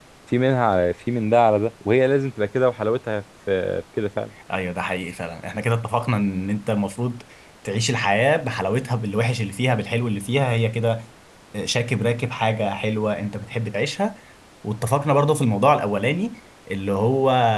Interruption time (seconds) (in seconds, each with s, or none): none